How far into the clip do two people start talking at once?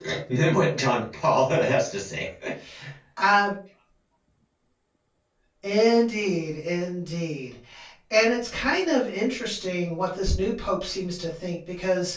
none

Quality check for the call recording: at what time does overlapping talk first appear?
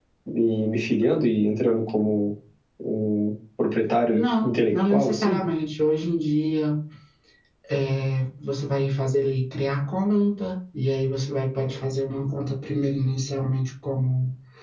4.1 s

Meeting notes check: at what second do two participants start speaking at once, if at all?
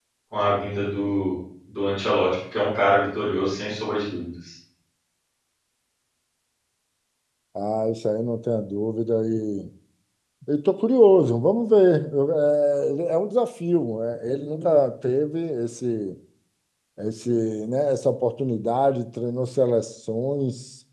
none

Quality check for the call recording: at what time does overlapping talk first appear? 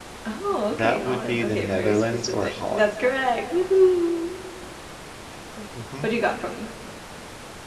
0.7 s

